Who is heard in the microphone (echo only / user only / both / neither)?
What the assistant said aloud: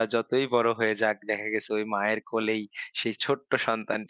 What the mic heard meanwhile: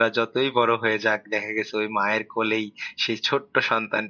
echo only